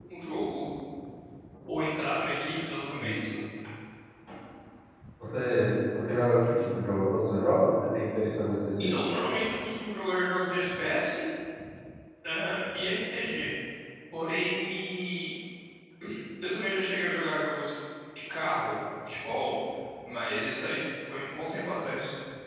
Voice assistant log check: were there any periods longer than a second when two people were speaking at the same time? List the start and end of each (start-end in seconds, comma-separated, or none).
none